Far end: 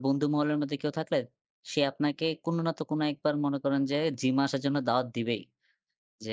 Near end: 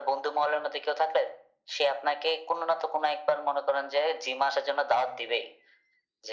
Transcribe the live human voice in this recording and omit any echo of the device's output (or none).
none